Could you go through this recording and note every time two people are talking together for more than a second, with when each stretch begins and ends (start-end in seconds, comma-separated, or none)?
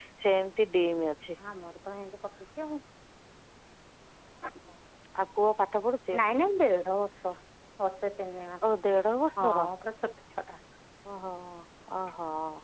none